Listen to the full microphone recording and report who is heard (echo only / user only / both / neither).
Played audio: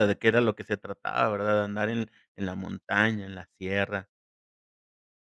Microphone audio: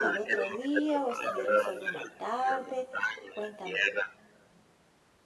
both